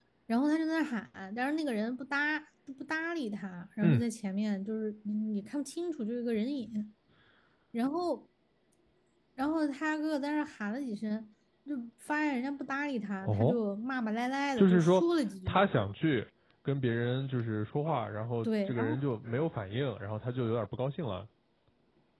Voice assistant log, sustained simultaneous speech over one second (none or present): none